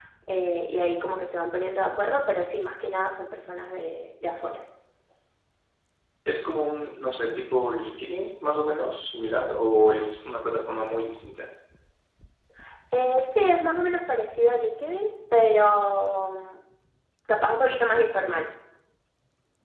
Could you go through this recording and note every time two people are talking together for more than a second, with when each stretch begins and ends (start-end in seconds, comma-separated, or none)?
none